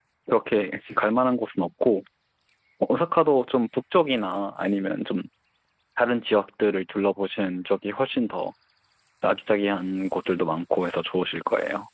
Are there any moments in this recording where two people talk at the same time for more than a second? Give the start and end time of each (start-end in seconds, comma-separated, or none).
none